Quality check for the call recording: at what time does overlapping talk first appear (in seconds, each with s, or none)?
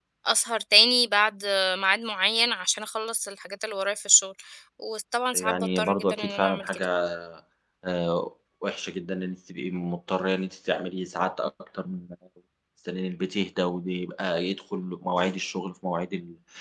5.3 s